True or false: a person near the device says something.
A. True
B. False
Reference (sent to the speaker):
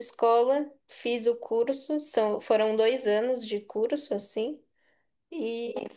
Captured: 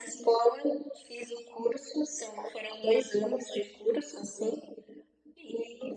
B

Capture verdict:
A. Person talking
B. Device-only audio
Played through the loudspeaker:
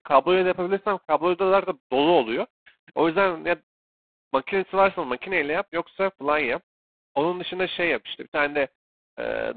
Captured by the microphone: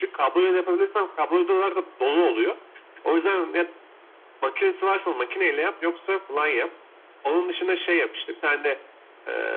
B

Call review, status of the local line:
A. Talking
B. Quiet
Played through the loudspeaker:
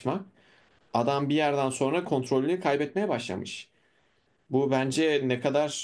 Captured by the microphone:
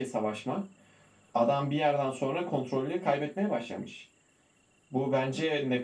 B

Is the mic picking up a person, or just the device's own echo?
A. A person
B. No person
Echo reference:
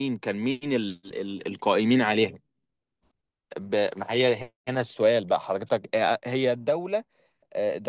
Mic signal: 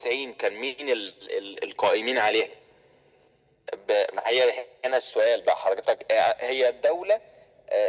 B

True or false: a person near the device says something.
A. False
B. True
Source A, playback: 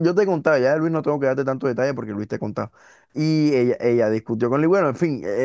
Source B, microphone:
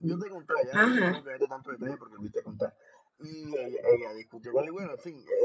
B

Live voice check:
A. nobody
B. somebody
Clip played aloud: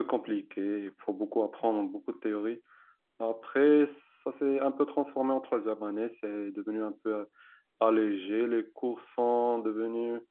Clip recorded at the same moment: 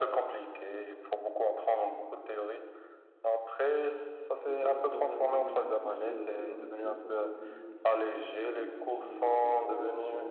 B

